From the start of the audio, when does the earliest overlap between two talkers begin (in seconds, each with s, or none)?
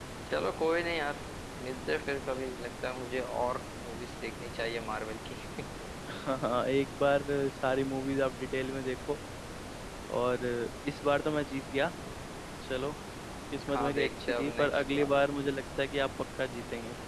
13.7 s